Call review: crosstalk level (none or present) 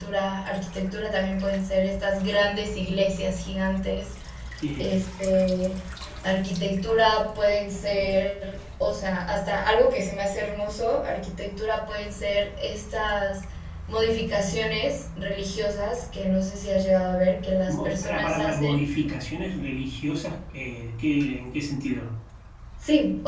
present